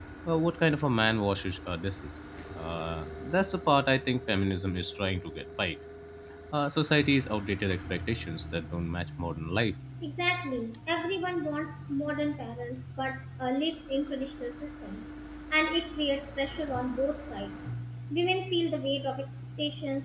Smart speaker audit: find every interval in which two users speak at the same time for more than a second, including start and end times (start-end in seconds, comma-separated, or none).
none